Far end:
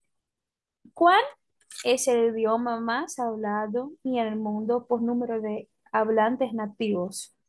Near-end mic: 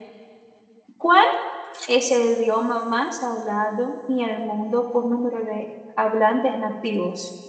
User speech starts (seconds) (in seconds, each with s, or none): none